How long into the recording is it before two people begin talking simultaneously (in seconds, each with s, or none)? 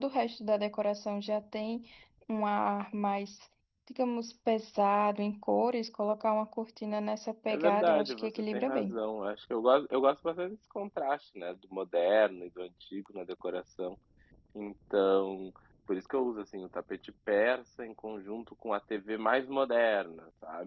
7.5 s